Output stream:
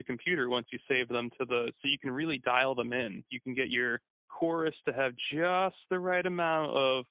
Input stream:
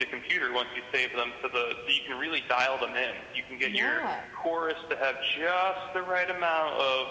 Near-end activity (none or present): present